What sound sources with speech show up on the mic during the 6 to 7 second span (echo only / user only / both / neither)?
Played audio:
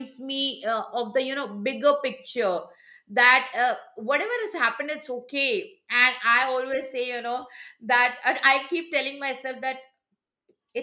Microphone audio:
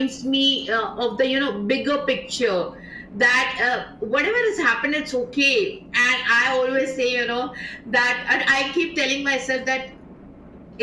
echo only